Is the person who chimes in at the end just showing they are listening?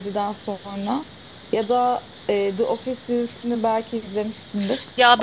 No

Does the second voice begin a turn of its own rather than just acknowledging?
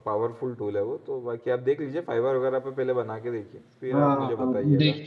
Yes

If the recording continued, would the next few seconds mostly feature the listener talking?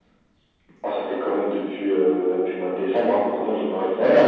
Yes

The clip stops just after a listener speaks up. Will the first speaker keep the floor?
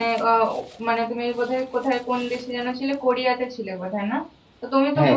Yes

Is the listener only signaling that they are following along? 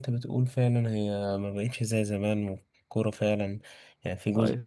Yes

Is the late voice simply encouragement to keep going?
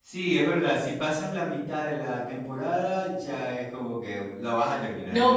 No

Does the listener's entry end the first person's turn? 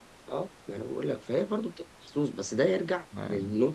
No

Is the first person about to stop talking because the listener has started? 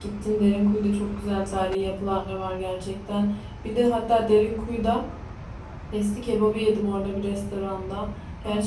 No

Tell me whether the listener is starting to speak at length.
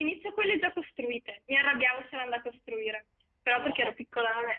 No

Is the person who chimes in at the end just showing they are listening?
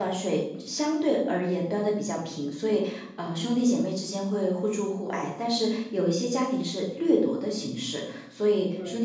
Yes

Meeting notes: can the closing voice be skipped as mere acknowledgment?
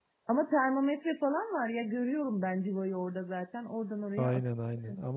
No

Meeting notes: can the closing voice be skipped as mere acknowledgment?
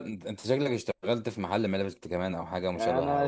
No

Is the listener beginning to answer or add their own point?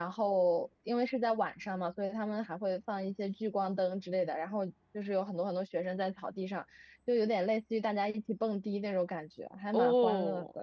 Yes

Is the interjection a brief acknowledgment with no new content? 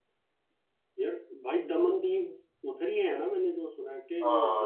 No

